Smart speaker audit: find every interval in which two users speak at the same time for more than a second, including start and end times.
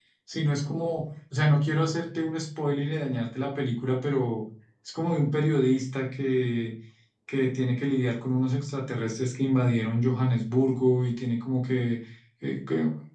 none

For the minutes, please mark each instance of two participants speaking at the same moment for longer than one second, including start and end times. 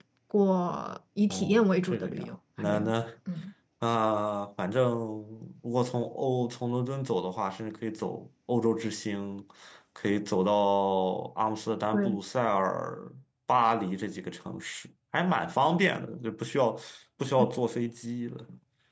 1.3-2.9

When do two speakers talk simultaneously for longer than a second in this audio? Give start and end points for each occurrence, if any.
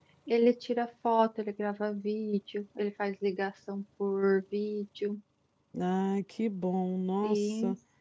none

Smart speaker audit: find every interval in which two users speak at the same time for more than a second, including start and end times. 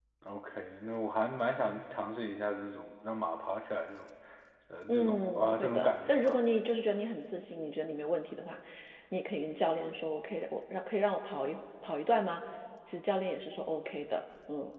4.9-6.4

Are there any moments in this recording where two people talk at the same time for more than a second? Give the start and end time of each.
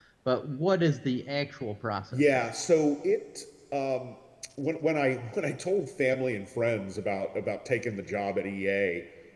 none

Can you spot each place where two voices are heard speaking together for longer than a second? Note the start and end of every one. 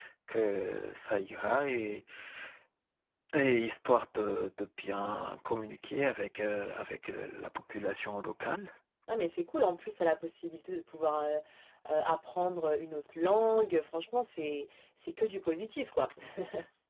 none

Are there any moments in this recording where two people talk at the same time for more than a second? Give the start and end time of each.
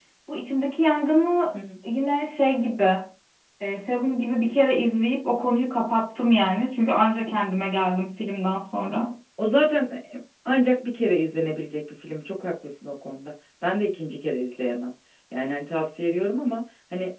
none

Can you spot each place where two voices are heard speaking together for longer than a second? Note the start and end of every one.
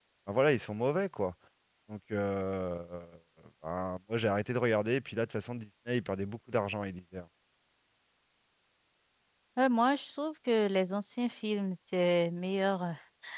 none

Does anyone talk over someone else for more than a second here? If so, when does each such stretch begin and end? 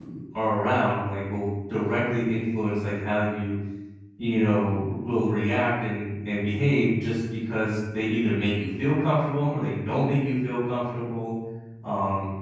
none

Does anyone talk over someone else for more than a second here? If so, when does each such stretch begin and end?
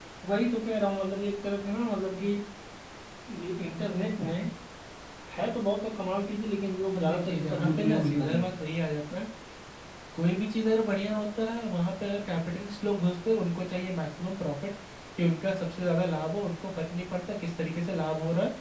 7.0-8.4

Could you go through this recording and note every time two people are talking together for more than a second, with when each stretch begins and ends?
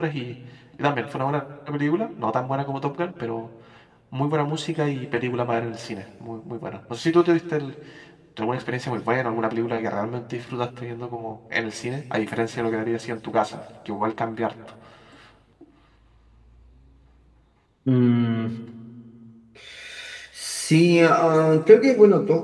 none

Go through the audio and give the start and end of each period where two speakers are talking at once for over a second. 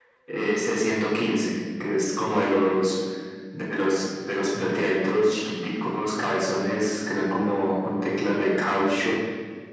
none

